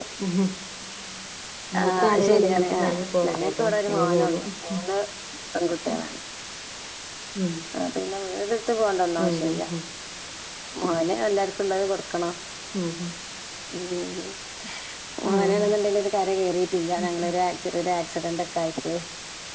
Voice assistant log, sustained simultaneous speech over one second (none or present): present